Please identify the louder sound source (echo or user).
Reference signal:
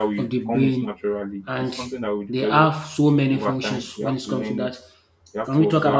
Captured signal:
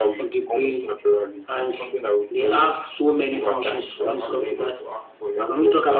echo